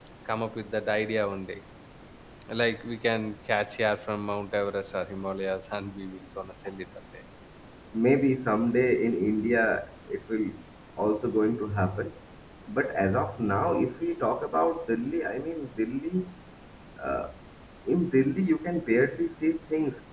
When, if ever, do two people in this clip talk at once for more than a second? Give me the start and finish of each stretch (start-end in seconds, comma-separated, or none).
none